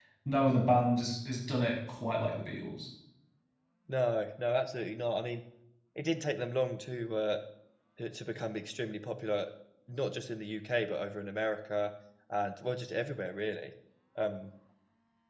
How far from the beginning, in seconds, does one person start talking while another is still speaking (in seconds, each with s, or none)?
none